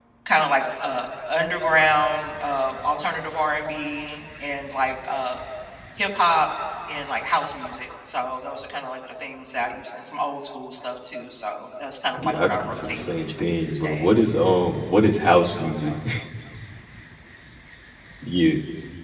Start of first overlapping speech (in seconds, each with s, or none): 12.2 s